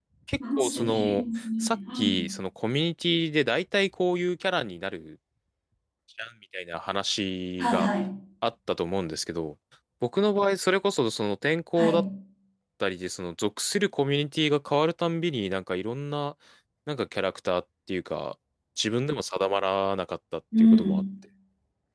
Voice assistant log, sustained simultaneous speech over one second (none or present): present